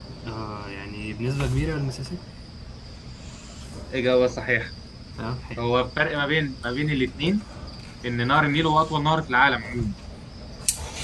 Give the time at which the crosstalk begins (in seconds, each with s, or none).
none